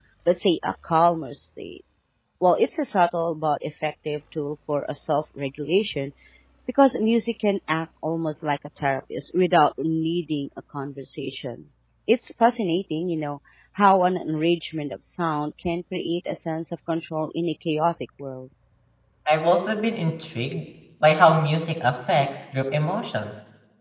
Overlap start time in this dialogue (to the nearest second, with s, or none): none